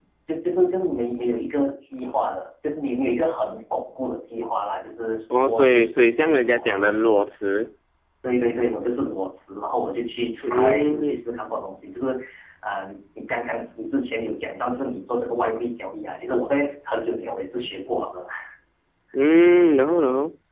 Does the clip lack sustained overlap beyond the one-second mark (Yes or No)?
No